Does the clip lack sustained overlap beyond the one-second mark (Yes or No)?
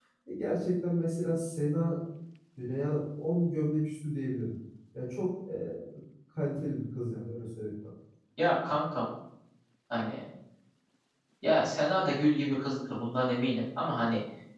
Yes